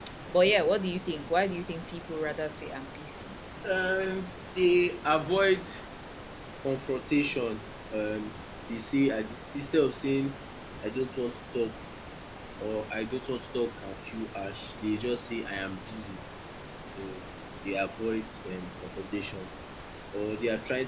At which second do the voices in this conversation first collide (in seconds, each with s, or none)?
none